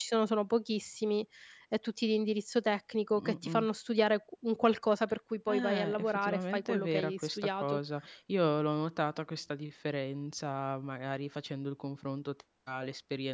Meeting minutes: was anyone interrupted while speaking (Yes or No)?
Yes